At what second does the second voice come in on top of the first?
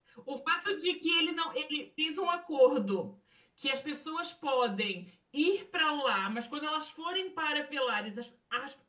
none

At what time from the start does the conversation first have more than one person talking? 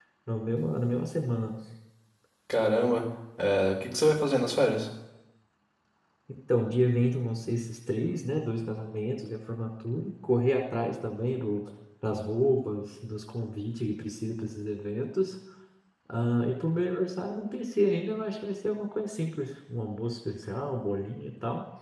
none

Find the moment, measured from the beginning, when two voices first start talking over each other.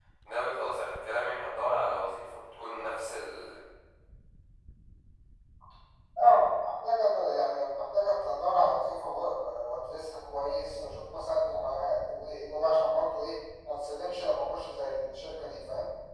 none

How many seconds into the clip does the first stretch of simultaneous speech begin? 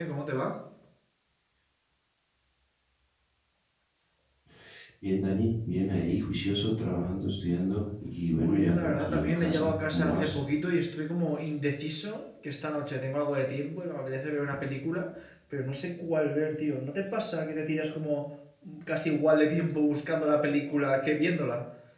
8.3 s

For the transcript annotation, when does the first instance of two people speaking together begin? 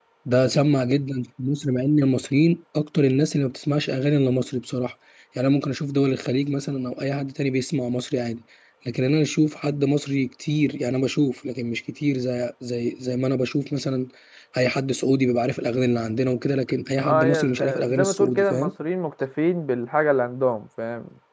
17.0 s

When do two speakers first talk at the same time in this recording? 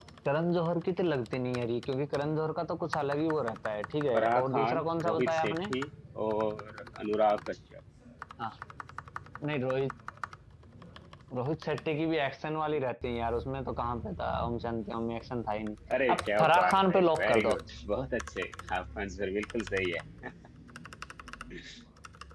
4.1 s

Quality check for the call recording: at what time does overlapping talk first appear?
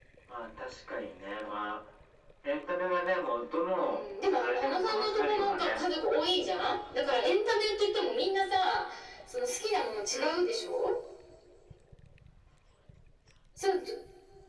3.8 s

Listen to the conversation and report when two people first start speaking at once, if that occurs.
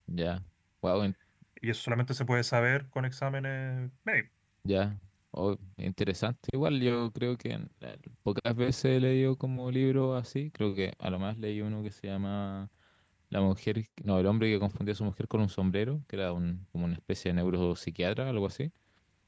none

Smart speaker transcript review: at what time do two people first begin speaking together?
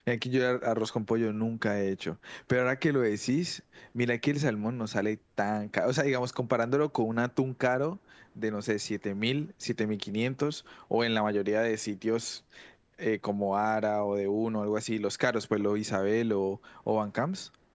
none

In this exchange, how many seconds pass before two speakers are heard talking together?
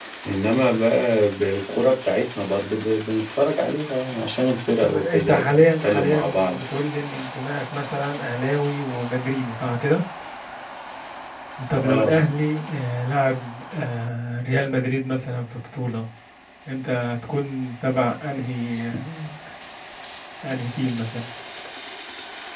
4.8 s

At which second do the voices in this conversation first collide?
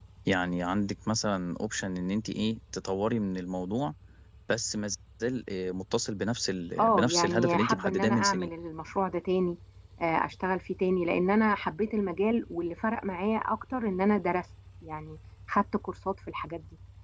6.8 s

